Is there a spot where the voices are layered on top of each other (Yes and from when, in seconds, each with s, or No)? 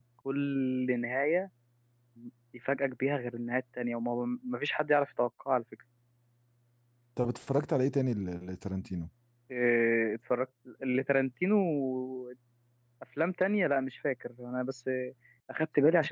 No